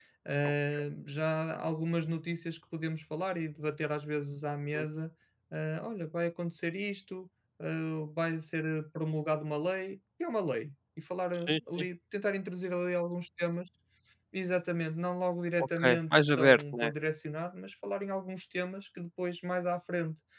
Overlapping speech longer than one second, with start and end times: 15.6-16.9

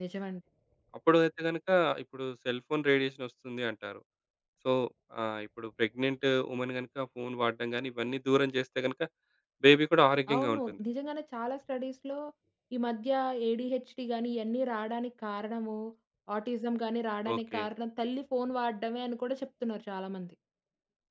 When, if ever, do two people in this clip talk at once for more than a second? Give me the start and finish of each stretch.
none

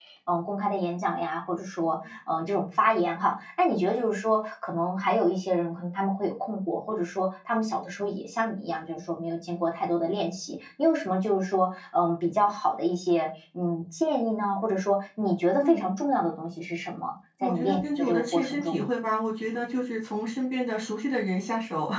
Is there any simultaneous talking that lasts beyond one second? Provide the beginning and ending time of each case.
17.4-18.8

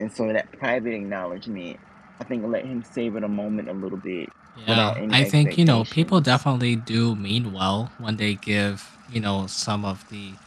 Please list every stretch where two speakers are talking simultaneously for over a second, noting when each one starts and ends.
4.7-6.4

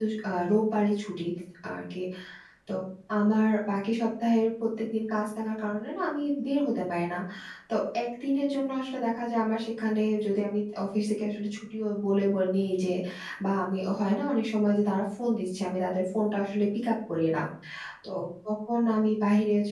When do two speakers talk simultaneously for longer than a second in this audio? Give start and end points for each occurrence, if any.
none

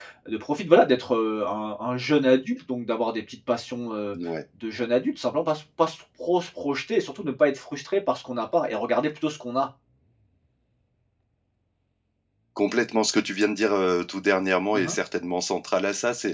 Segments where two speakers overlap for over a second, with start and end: none

